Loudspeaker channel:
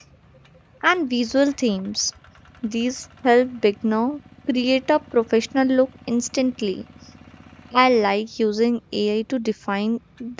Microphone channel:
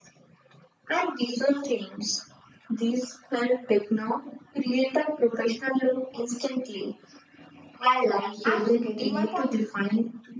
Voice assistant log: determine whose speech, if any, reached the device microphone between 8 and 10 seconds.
both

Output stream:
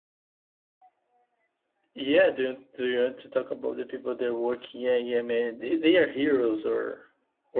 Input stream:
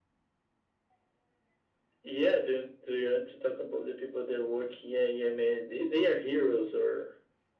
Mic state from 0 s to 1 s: neither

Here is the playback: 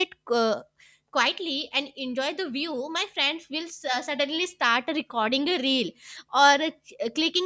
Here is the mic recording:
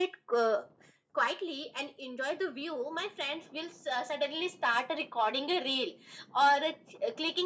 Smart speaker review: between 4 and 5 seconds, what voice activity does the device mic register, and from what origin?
echo only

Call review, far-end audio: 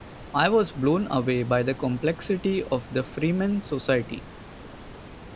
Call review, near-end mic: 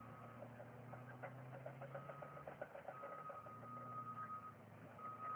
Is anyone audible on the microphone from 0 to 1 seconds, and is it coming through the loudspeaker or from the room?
neither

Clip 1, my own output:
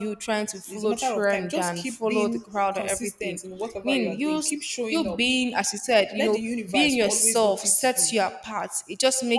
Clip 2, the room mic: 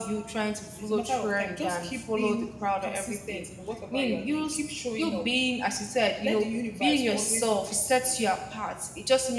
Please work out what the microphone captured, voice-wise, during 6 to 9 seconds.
echo only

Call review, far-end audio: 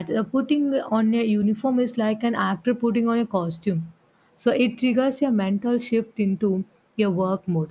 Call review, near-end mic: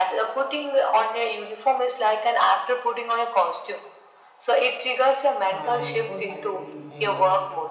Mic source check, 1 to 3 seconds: echo only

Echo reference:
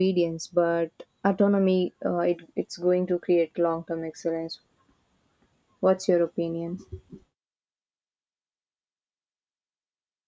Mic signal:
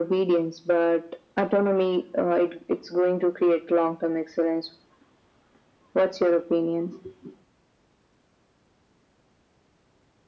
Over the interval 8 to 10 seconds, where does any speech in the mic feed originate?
neither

